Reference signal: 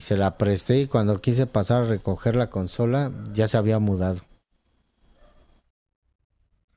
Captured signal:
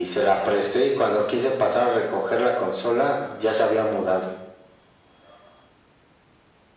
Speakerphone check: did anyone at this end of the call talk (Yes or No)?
No